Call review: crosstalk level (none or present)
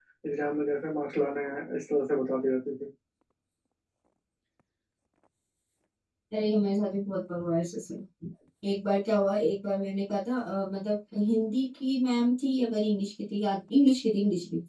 none